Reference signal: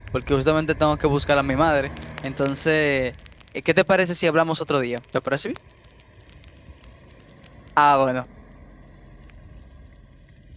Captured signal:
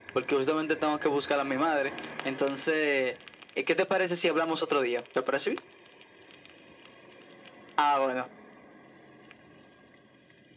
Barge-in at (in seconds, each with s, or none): none